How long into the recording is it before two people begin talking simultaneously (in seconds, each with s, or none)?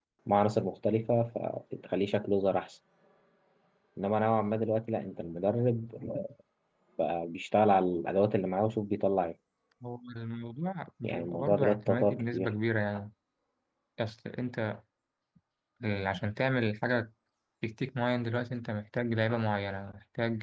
11.0 s